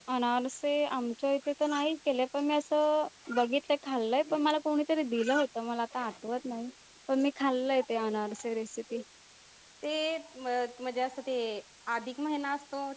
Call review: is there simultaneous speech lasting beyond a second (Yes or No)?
No